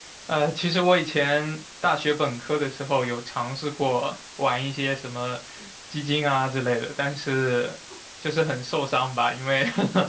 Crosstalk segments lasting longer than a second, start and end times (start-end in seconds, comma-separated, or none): none